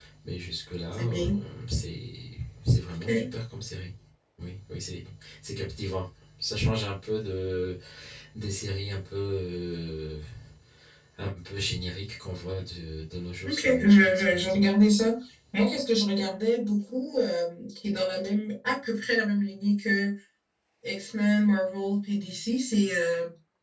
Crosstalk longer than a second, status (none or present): present